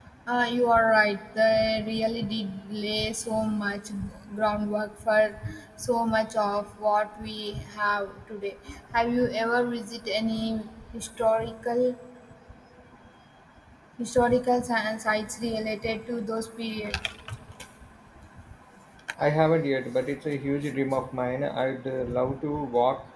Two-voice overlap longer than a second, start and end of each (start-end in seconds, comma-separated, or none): none